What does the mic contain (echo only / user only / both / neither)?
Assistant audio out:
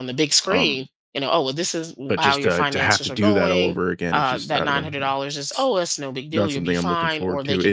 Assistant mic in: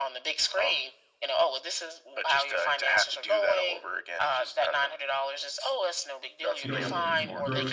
both